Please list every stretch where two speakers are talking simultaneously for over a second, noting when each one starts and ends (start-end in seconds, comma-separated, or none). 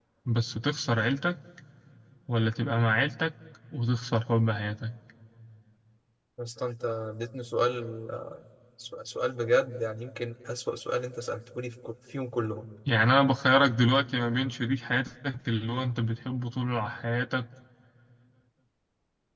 none